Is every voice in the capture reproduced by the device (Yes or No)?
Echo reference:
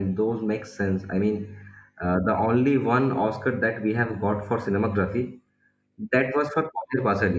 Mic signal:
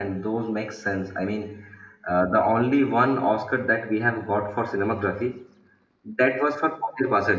Yes